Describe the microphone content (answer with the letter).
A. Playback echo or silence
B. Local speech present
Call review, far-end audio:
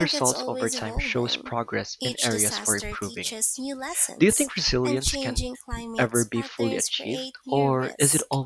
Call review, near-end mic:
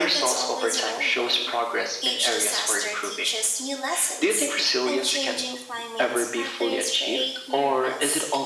A